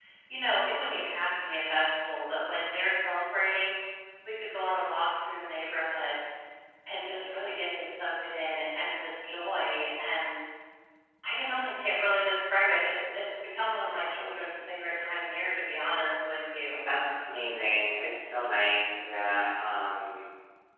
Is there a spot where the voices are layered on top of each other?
No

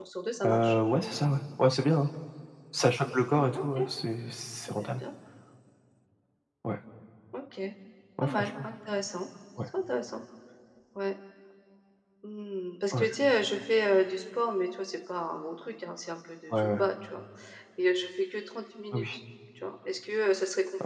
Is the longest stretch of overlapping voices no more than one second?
Yes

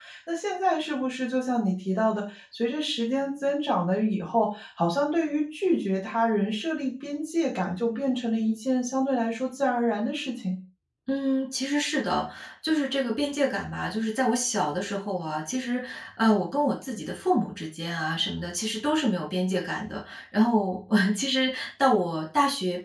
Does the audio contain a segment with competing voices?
No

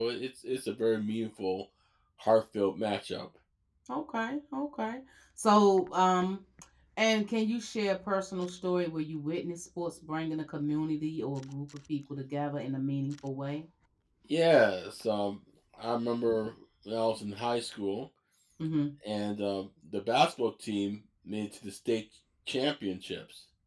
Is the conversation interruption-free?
Yes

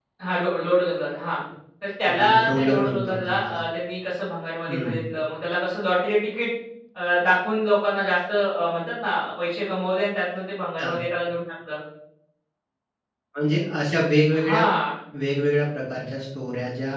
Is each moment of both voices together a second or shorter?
No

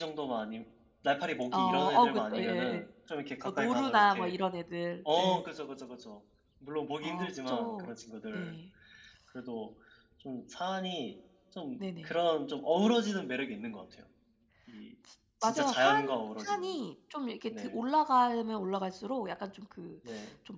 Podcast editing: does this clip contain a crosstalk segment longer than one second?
Yes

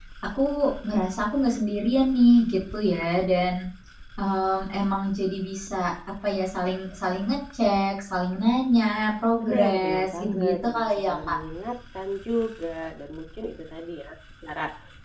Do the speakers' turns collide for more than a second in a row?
Yes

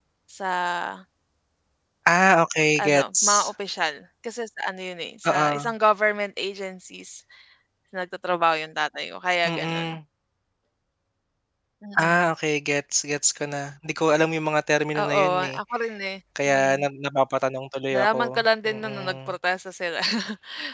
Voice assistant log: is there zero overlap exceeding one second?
No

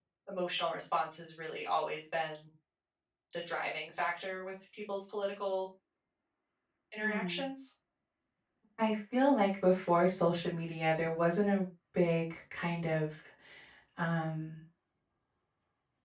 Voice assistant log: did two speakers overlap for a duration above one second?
No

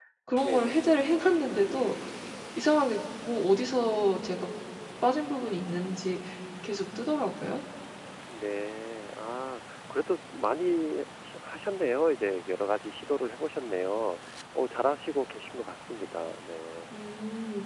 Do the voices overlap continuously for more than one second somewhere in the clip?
No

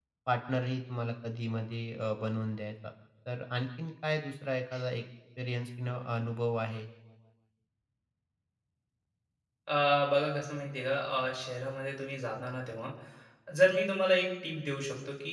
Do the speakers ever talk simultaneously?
No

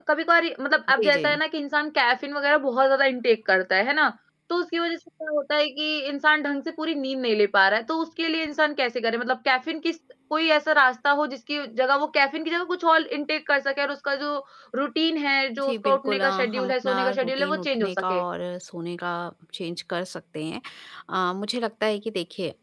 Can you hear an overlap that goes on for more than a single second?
Yes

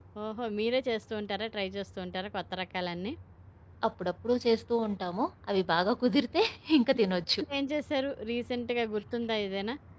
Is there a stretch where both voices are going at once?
No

